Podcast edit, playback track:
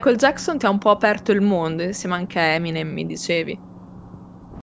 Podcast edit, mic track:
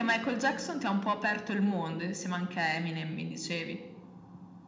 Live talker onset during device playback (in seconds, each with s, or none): none